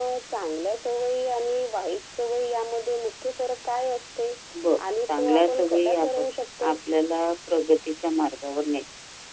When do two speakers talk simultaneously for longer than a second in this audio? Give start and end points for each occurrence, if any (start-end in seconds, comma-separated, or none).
5.0-6.2